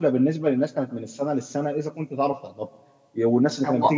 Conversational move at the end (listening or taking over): listening